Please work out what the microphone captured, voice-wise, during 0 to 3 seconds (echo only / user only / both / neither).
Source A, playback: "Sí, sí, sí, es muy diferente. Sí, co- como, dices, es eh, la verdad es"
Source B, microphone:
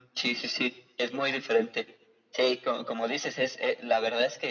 echo only